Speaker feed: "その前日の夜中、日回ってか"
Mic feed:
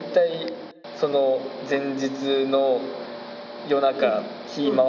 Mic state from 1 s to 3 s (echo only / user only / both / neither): echo only